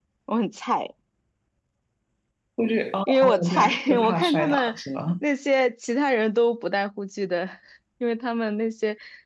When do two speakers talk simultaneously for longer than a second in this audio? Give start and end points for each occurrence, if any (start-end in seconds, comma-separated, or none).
3.1-4.8